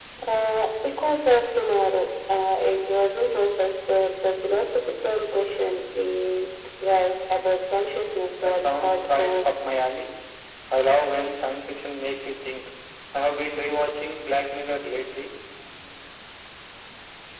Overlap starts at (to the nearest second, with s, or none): 8 s